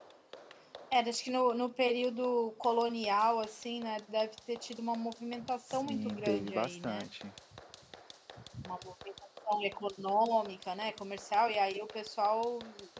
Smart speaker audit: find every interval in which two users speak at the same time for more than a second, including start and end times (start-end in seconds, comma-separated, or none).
5.7-7.1